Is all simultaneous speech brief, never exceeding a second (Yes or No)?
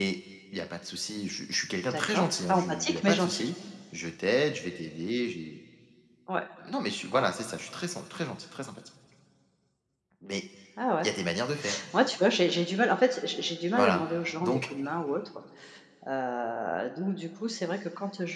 No